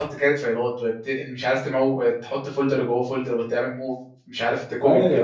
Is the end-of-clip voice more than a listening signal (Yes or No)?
Yes